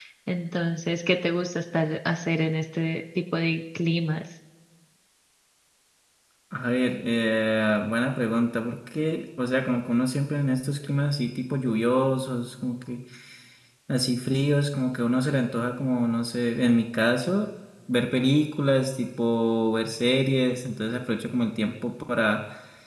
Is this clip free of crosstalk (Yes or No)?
Yes